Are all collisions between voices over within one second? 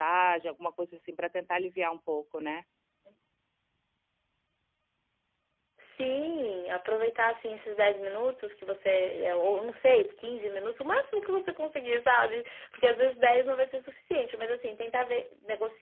Yes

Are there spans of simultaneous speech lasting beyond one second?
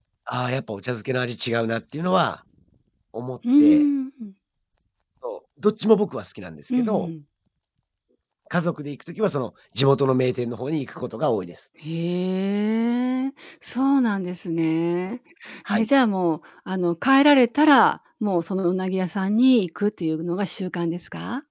No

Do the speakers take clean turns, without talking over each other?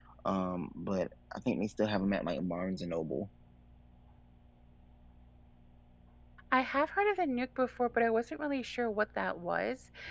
Yes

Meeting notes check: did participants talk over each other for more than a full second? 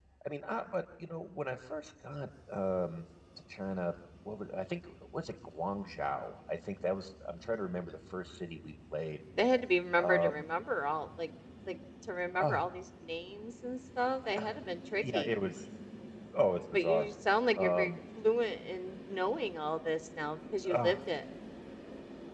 No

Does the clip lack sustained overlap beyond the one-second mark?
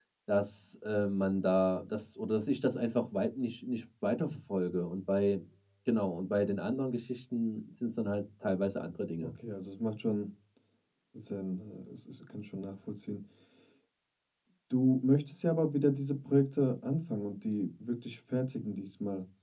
Yes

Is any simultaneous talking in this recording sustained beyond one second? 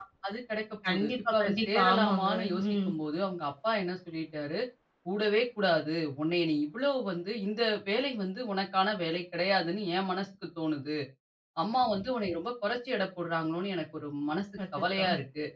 Yes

